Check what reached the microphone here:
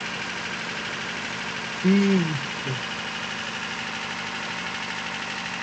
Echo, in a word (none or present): none